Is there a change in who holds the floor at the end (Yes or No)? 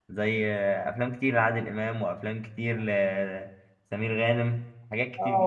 Yes